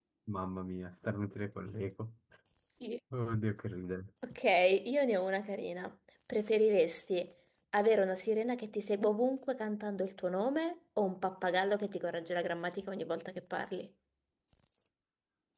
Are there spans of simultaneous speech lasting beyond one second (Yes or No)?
No